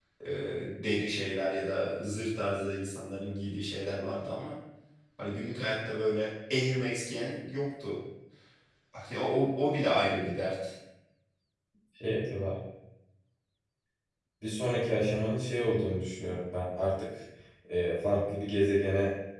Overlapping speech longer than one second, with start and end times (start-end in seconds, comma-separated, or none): none